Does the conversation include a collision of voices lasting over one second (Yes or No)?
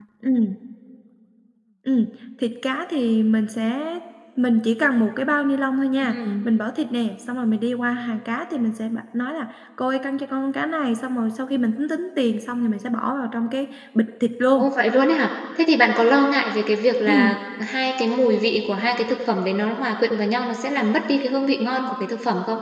No